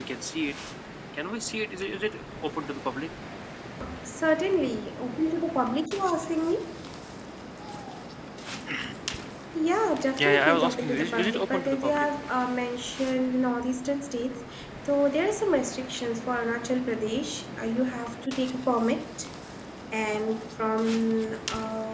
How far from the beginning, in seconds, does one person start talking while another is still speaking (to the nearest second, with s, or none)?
10 s